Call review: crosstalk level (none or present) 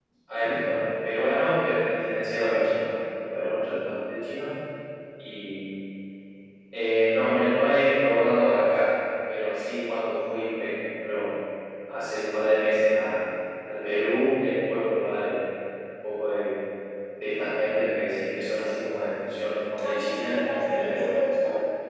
present